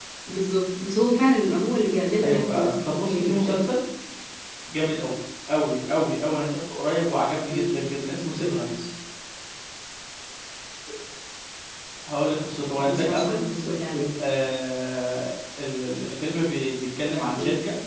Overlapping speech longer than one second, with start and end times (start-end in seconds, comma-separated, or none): 2.2-3.6